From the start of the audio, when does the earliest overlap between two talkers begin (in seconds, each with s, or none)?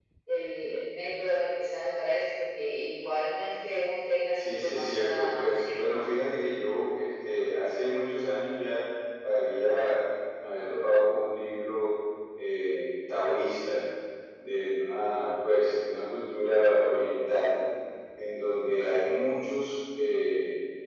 4.4 s